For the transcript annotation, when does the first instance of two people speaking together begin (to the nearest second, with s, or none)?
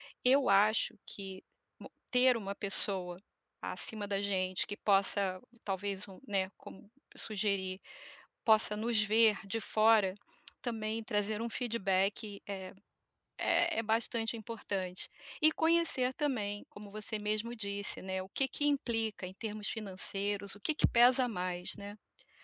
none